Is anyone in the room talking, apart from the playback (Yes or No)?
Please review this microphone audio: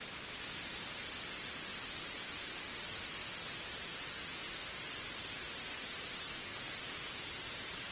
No